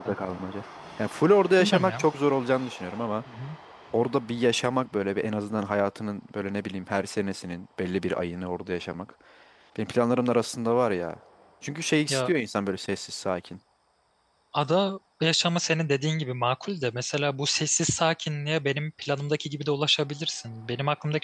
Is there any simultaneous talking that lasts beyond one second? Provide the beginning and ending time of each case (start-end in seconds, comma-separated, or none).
none